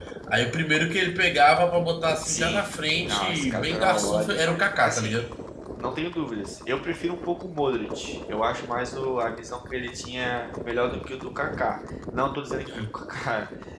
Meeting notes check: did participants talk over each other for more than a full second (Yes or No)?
Yes